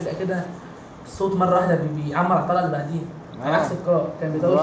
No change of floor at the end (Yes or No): No